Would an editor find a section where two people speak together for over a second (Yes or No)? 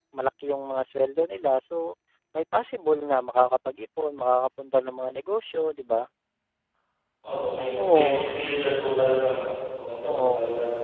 No